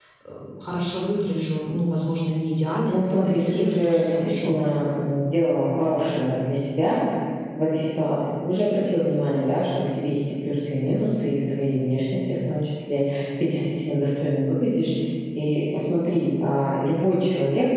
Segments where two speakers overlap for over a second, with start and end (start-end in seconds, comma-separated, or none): 2.9-4.5